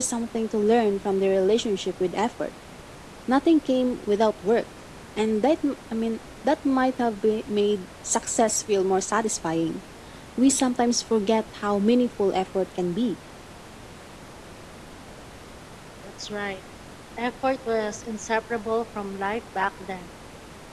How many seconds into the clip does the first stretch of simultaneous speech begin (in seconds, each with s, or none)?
none